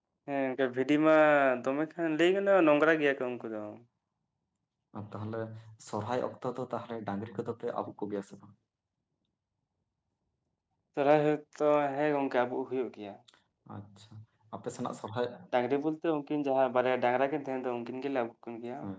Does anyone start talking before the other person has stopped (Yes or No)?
No